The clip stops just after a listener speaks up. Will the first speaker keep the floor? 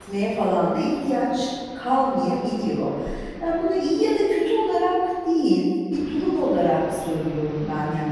No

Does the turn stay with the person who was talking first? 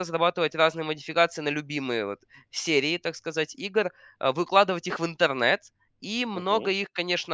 Yes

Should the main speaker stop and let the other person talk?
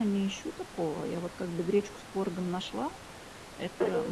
No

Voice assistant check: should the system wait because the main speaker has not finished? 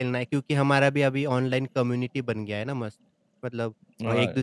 Yes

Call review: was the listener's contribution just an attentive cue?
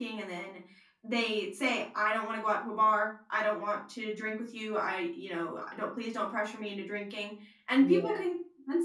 Yes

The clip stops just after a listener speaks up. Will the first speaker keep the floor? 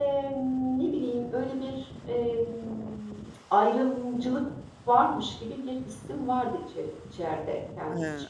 No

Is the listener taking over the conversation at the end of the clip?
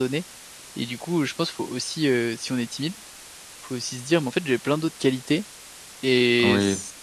No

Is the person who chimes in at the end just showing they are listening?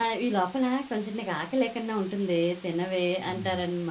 No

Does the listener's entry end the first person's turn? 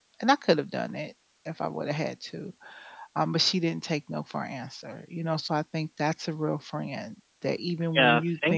Yes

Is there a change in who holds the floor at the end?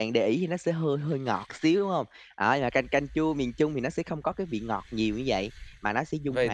Yes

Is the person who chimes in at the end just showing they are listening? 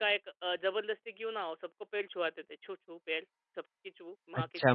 No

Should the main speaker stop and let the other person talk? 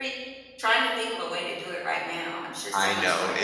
Yes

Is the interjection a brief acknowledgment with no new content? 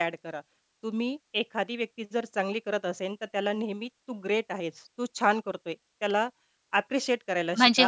No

